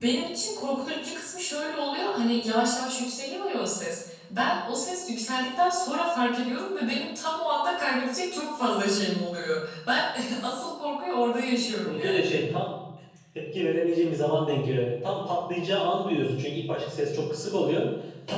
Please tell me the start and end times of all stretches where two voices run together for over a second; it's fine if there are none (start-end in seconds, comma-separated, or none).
none